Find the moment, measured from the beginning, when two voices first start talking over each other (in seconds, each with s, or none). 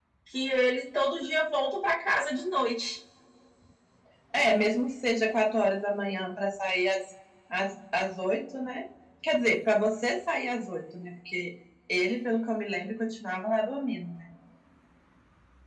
none